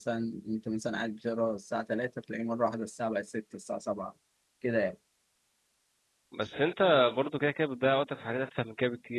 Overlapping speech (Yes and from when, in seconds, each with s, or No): No